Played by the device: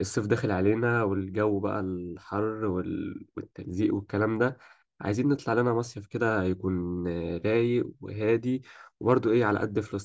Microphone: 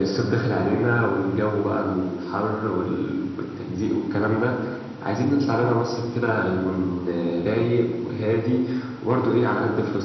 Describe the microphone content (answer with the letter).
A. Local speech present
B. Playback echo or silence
B